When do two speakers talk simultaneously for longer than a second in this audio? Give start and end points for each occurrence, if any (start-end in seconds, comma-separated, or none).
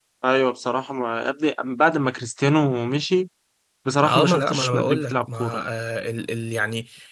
4.0-5.6